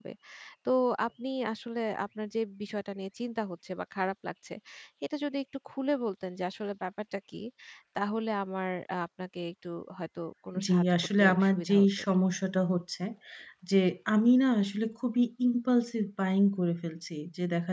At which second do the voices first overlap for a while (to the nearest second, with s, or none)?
11 s